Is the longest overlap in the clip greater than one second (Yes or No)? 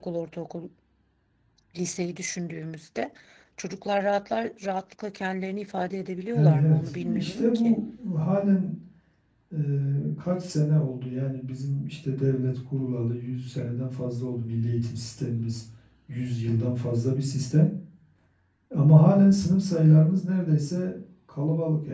Yes